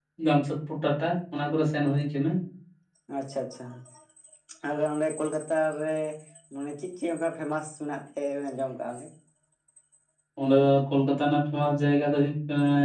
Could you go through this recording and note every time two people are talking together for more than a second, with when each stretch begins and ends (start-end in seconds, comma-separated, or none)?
none